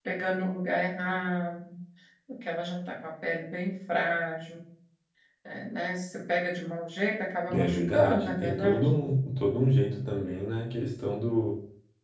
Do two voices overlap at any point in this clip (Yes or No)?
Yes